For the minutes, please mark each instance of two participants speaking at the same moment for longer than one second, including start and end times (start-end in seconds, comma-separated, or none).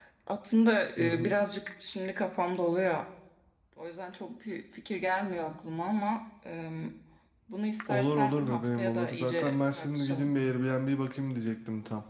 7.9-10.3